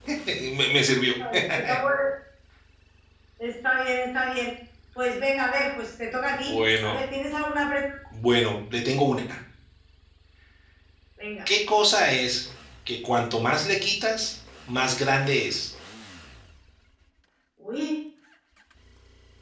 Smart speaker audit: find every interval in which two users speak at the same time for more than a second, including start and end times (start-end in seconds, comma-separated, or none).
none